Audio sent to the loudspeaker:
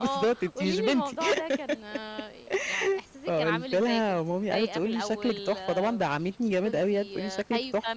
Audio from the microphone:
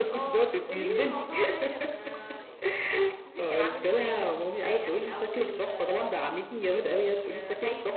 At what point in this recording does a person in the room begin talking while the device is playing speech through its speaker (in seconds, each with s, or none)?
none